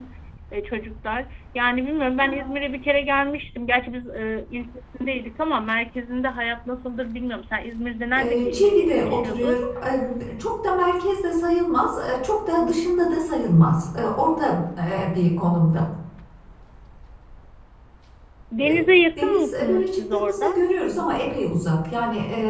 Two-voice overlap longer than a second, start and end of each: 8.2-9.6, 19.2-20.6

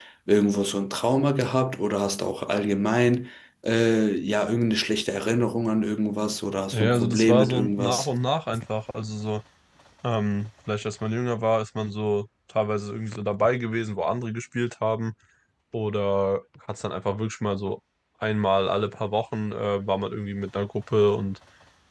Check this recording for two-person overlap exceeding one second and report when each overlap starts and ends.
6.7-8.1

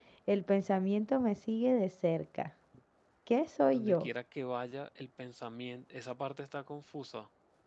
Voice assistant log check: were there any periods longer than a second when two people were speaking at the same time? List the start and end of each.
none

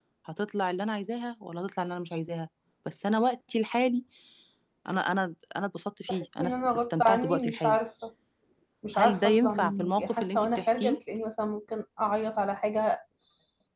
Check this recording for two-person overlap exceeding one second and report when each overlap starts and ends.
6.1-7.8, 8.9-11.0

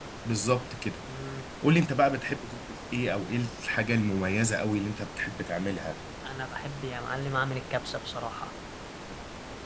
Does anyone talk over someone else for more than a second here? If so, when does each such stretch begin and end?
none

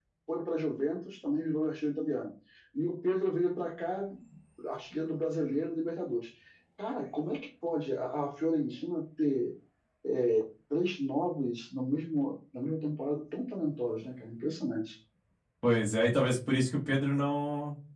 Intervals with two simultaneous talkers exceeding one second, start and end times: none

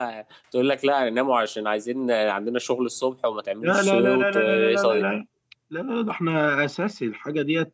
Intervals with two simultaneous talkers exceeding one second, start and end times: 3.6-5.0

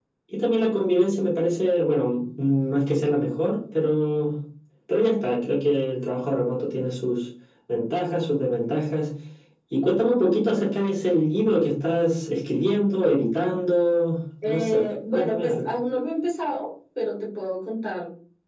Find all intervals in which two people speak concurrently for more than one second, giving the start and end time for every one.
14.4-15.7

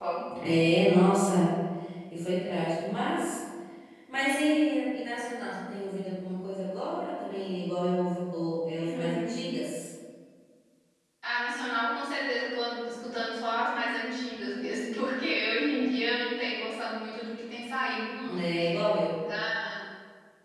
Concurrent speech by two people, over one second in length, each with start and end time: none

